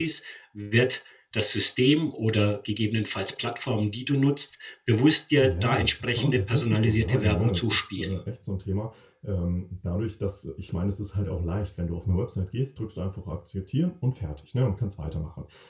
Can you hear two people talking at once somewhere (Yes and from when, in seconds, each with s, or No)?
Yes, from 5.4 s